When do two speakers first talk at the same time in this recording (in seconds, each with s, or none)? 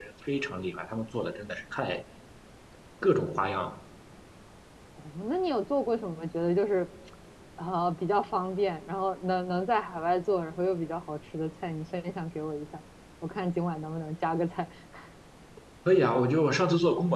none